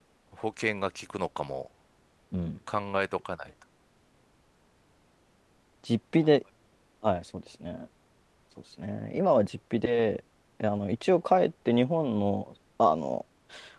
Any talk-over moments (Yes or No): No